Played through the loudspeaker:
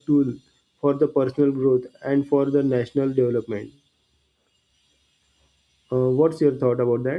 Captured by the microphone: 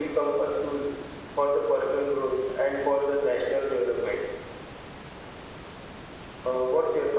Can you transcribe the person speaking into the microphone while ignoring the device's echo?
none

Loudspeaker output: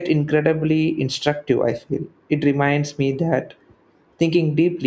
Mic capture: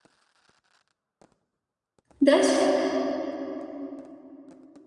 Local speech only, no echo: there's

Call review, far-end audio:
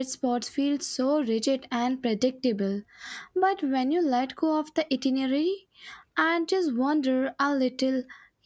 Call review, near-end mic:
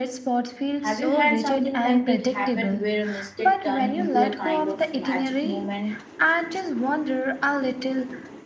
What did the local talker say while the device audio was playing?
Have you had something like that happen where a mistake turned into a kind of magic moment?

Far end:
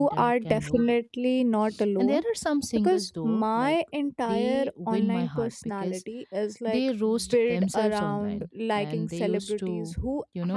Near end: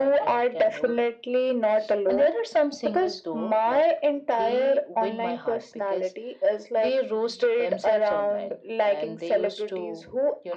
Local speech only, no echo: none

